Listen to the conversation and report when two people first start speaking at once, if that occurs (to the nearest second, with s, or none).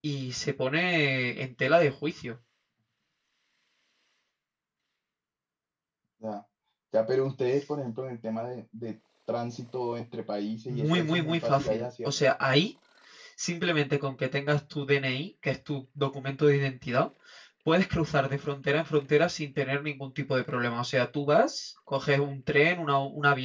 11 s